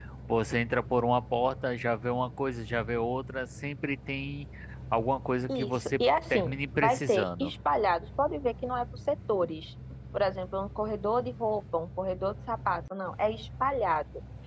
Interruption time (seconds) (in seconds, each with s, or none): 5.5 s